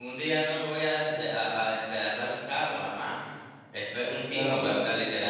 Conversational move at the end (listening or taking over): listening